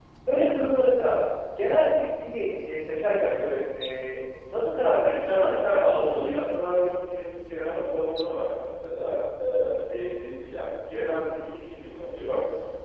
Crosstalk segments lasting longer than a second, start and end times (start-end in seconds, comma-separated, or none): 5.2-6.4